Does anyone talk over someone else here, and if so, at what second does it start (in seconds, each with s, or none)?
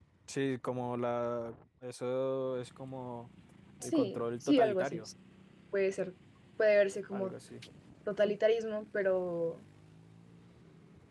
3.8 s